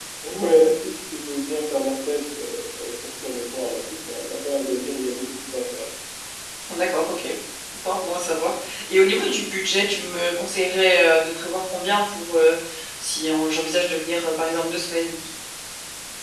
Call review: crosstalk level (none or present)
none